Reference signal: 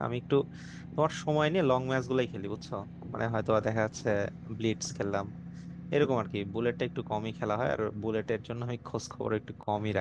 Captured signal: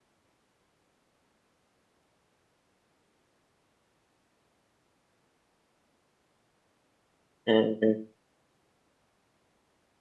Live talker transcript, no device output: হ্যাঁ হ্যাঁ।

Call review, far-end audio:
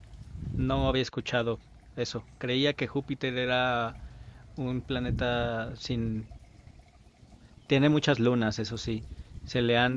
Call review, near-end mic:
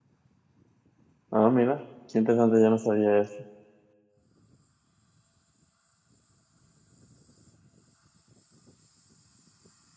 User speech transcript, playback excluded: Ah, mira, qué interesante, yo no sabía eso.

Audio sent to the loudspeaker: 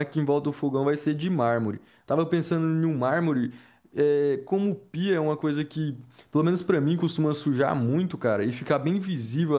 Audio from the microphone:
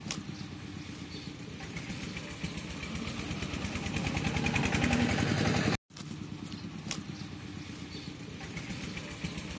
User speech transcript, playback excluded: none

